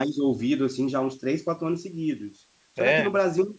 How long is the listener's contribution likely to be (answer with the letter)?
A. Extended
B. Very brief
B